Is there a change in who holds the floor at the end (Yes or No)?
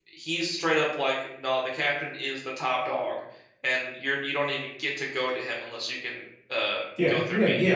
Yes